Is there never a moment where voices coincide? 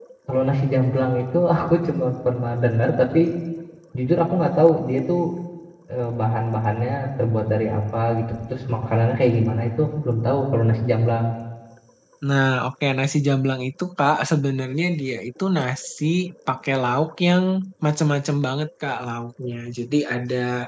Yes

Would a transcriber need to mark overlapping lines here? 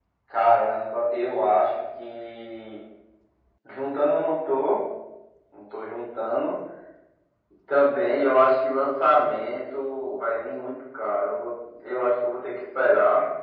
No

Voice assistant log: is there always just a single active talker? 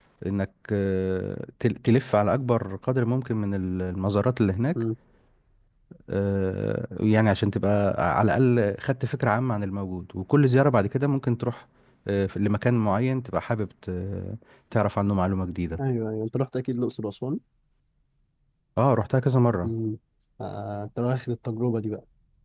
Yes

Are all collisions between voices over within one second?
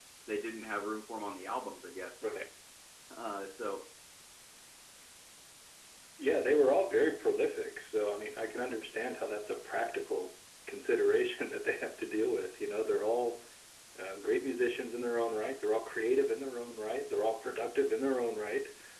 Yes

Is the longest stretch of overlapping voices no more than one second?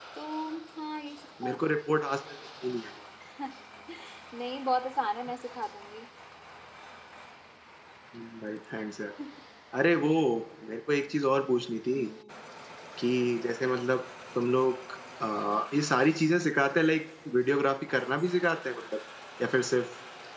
Yes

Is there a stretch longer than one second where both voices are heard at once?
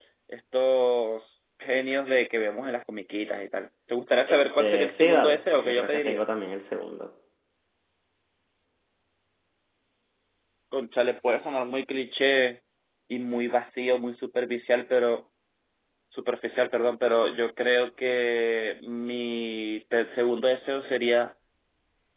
Yes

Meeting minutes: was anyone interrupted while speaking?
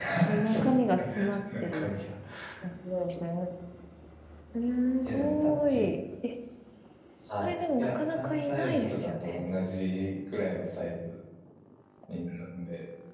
Yes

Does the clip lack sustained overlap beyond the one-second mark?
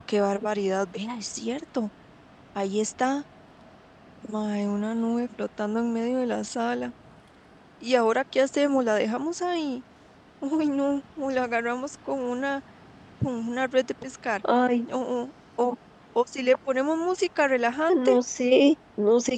Yes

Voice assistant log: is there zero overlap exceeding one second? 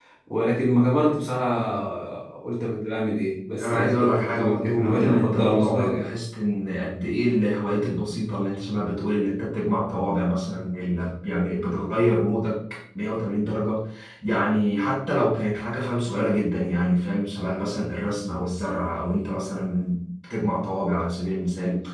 No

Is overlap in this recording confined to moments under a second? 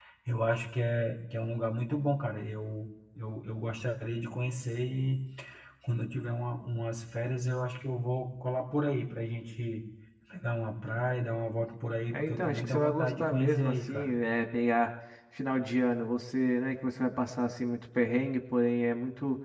No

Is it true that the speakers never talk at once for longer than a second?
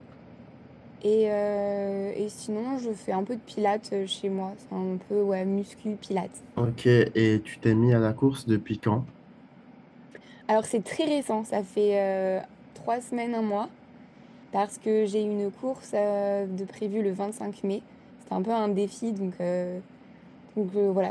Yes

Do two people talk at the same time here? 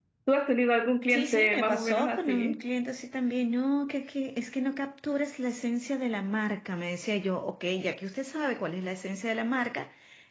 Yes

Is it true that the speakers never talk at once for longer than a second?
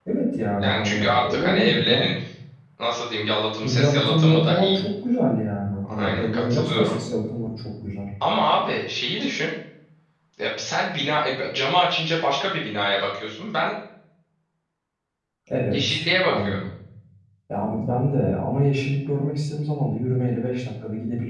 No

